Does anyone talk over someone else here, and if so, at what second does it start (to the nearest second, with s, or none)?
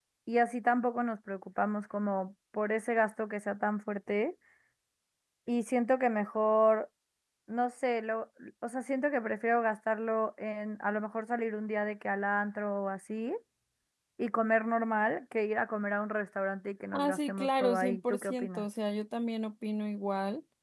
17 s